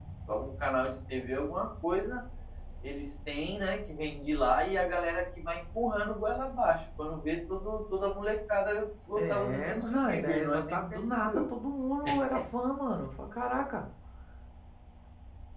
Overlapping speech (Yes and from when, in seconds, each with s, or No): Yes, from 9.2 s